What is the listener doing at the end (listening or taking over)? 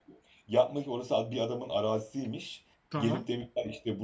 listening